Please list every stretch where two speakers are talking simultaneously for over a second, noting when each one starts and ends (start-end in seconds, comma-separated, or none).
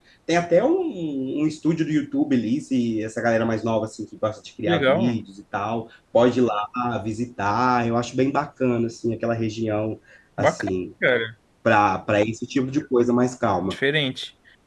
none